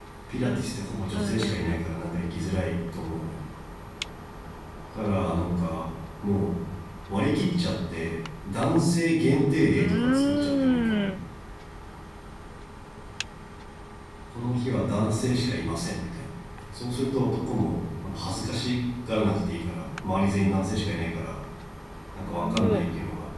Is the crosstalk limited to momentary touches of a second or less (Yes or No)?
No